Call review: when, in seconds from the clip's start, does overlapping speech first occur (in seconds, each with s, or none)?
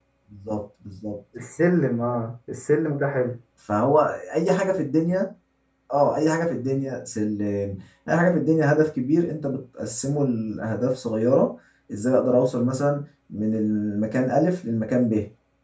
none